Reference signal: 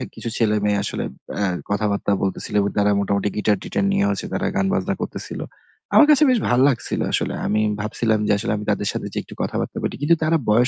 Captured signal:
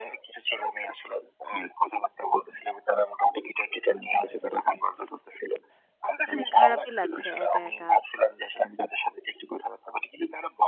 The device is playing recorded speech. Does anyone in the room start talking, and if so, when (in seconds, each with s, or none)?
6.3 s